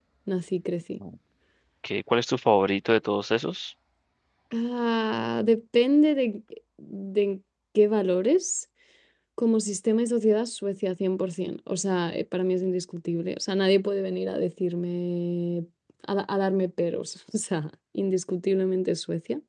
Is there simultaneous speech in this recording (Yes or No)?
No